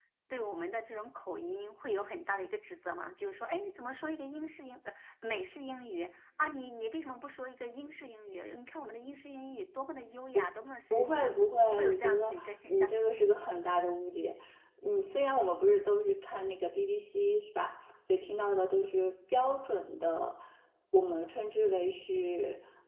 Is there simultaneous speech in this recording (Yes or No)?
Yes